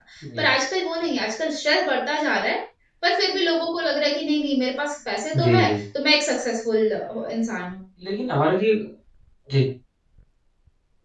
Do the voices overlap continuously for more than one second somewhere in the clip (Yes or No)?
No